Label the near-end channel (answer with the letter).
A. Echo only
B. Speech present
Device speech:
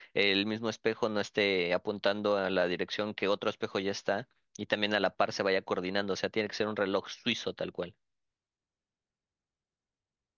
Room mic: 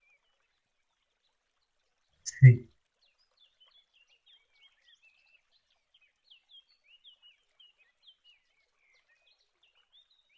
B